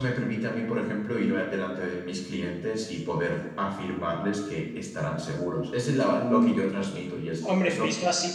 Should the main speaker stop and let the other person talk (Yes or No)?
Yes